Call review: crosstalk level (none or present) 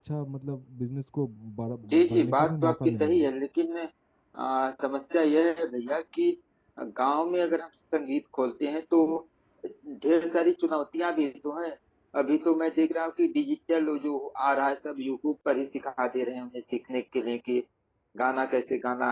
present